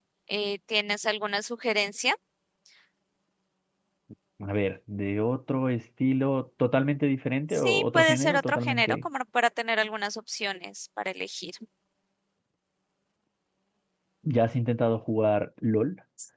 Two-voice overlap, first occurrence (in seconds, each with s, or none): 7.5 s